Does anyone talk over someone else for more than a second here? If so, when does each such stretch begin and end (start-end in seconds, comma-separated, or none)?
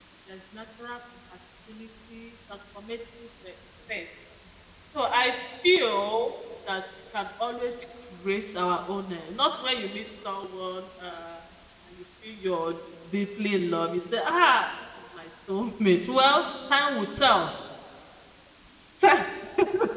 none